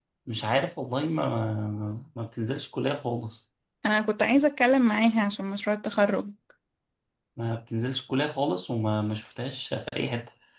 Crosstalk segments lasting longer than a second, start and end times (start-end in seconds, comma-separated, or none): none